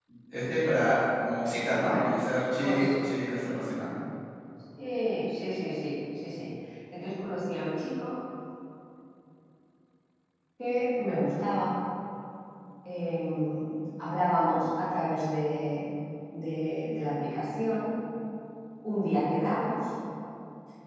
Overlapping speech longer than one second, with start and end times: none

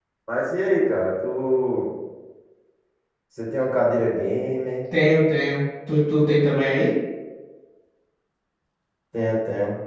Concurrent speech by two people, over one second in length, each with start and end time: none

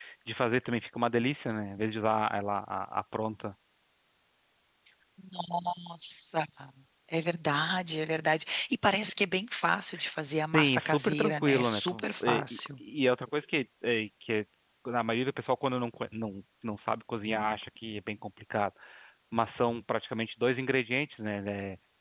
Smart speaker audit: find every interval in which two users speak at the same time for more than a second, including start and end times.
10.5-12.7

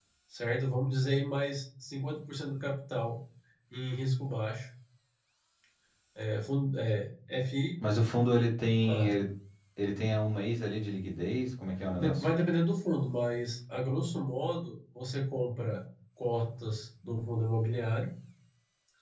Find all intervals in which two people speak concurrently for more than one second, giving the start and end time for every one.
none

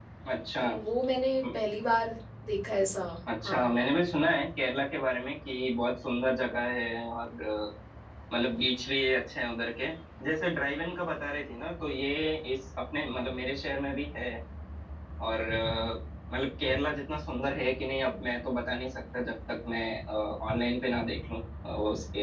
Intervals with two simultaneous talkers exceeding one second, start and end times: none

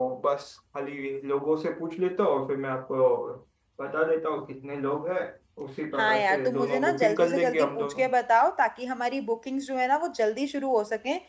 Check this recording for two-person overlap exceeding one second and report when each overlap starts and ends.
5.9-8.1

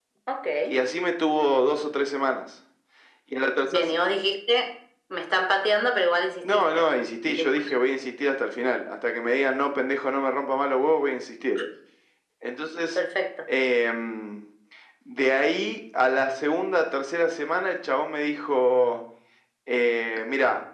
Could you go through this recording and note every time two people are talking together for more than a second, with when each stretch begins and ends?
none

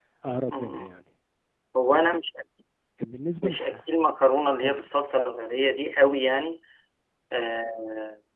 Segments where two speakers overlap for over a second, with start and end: none

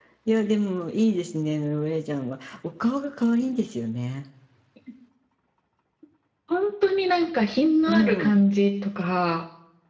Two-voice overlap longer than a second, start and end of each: none

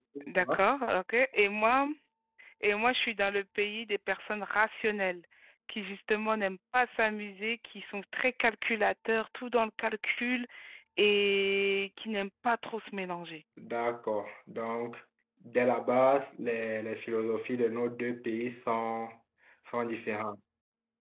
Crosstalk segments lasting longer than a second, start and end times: none

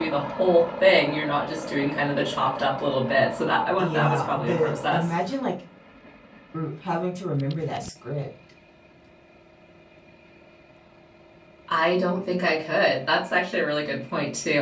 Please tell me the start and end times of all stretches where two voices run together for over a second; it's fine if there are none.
3.8-5.2

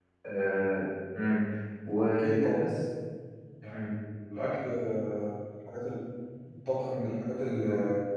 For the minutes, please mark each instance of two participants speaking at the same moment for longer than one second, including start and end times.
none

